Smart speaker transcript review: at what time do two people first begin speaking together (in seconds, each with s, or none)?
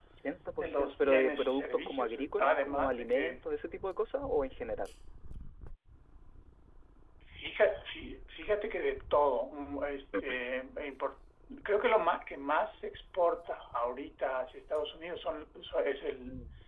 0.6 s